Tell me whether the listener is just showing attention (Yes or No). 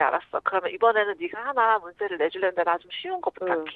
No